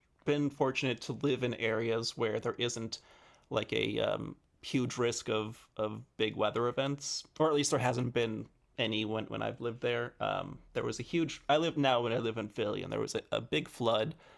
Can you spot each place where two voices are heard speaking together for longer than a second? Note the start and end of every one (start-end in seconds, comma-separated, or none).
none